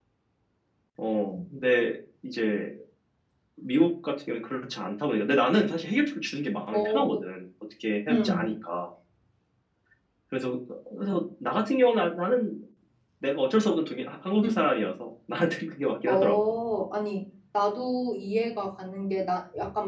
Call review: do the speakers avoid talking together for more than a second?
Yes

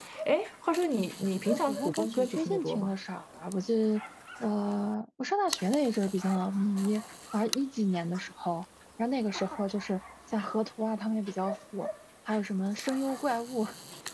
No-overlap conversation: No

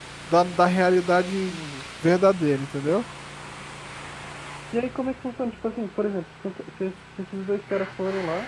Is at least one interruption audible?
No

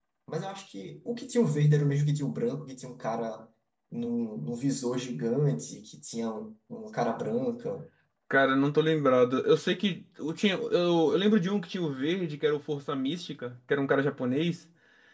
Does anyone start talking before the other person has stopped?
No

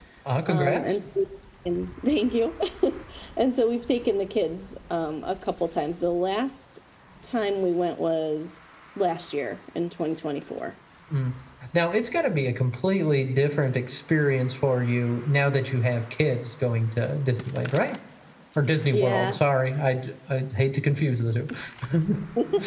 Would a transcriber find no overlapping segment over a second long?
Yes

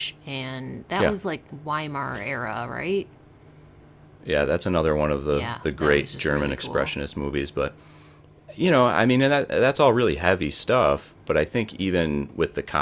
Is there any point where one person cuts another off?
Yes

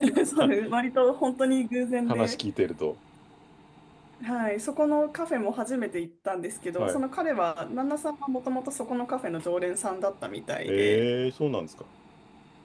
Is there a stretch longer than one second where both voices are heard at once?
No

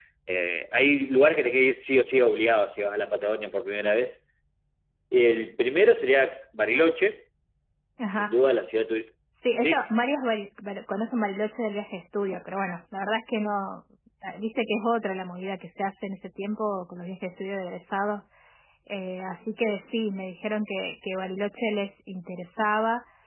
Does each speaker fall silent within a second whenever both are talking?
Yes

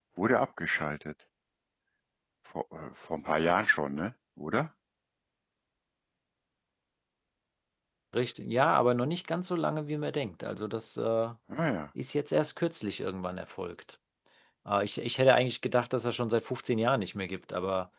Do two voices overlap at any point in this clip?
No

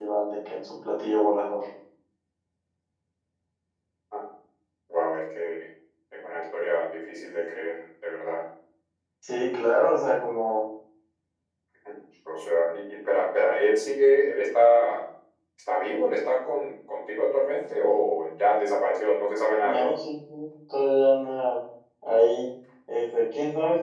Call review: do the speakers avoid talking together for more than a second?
Yes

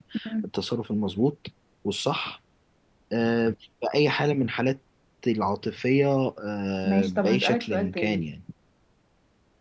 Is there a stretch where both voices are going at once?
Yes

